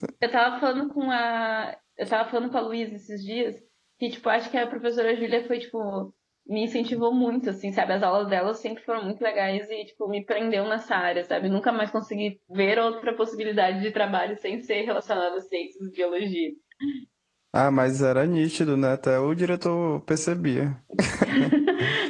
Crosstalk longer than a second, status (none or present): none